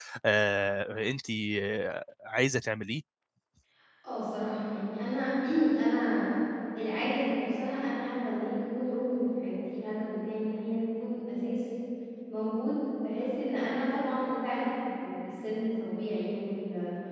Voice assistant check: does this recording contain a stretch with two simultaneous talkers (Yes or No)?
No